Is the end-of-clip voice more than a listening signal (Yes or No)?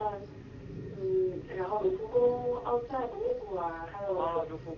Yes